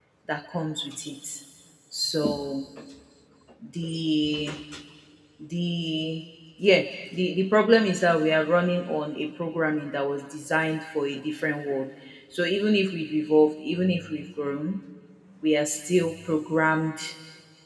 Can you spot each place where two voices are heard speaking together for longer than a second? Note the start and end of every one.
none

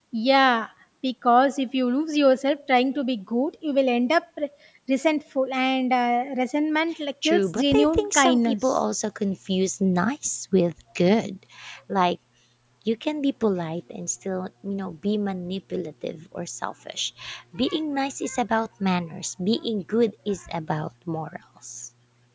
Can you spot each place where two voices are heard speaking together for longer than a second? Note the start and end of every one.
7.2-8.8

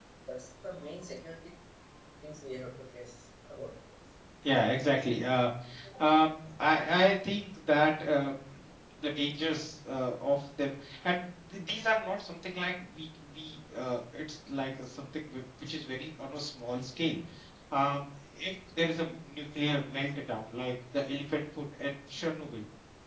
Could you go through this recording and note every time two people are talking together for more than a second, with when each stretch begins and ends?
none

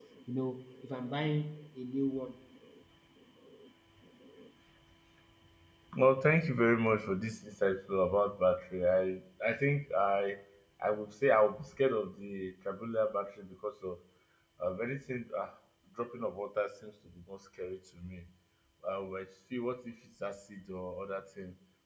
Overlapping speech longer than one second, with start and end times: none

